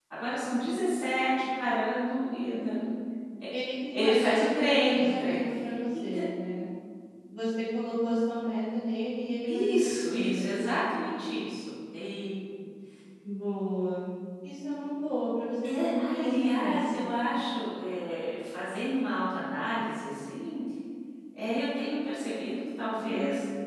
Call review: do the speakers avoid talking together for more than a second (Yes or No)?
No